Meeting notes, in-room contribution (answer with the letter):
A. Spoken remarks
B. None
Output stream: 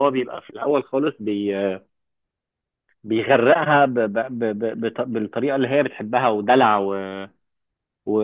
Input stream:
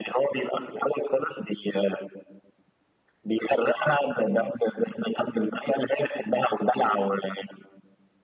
B